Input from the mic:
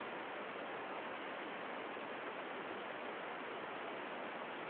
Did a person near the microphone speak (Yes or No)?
No